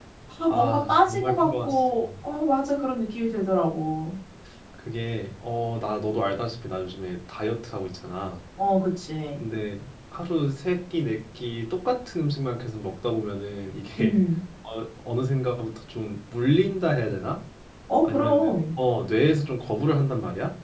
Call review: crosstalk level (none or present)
present